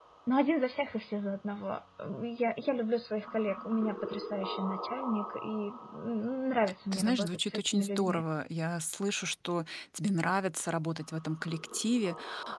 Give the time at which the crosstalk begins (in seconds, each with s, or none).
6.9 s